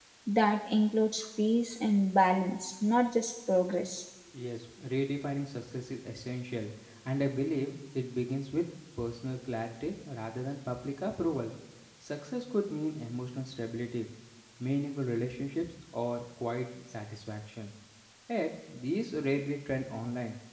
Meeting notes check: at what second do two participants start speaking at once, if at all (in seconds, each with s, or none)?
none